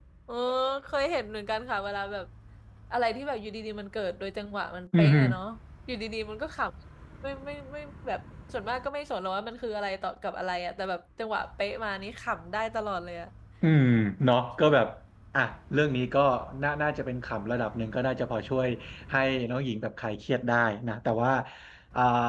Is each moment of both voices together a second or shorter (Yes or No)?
Yes